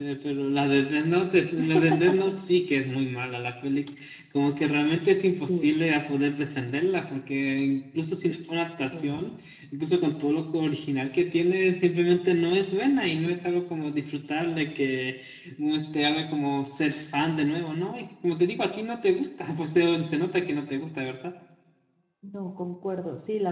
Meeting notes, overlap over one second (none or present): none